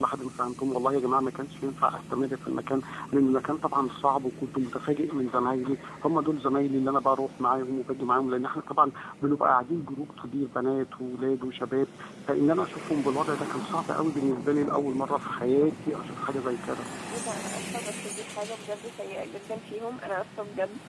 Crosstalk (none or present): none